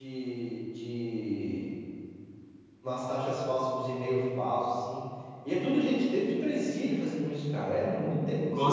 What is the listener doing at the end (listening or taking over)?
taking over